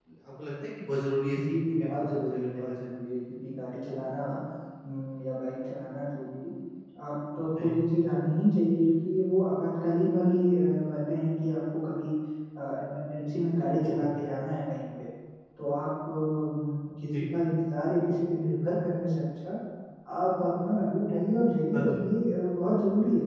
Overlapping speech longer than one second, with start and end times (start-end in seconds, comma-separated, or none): 1.4-2.9